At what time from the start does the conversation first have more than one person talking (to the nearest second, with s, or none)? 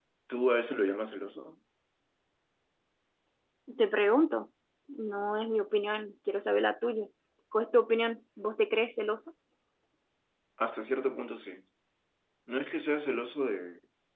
none